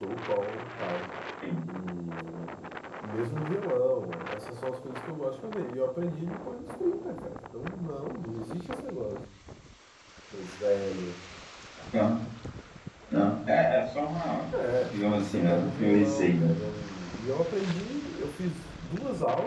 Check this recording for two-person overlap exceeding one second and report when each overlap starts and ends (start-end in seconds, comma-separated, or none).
14.9-16.5